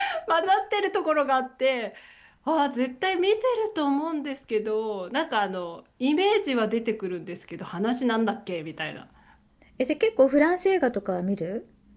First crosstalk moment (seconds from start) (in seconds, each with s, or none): none